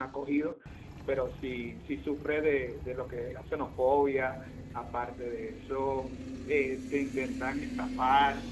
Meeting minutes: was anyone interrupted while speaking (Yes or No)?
No